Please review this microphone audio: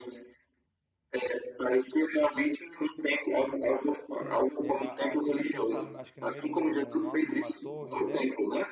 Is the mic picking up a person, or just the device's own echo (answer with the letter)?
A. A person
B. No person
A